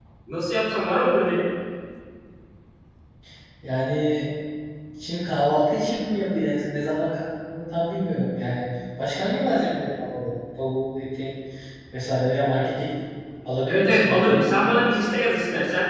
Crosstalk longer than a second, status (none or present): present